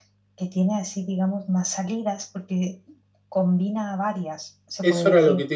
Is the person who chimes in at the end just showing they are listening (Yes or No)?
No